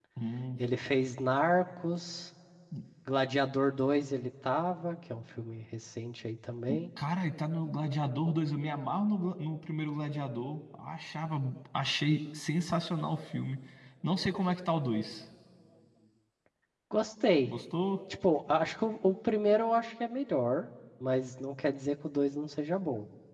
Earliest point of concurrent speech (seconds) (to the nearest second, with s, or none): none